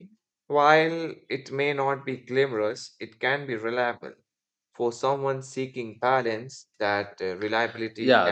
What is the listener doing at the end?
taking over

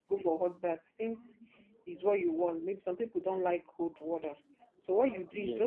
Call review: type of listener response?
listening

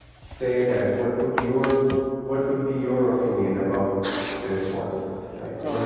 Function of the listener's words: taking over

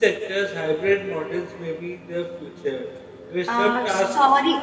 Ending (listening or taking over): taking over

